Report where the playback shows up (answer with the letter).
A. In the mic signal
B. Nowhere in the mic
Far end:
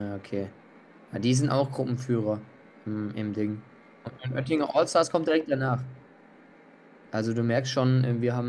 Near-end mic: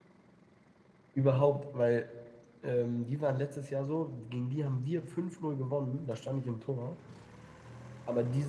B